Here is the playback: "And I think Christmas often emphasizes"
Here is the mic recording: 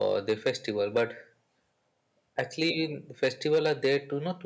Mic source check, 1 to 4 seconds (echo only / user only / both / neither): user only